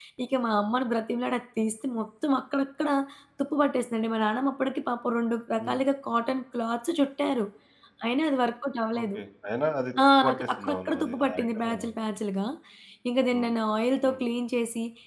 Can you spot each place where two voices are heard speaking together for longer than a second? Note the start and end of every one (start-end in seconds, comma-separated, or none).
10.2-11.9